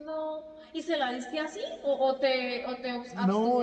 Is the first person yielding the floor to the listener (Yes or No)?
Yes